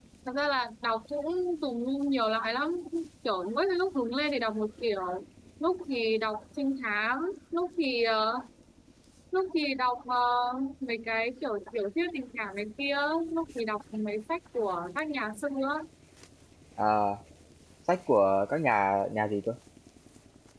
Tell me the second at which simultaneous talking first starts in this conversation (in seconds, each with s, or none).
none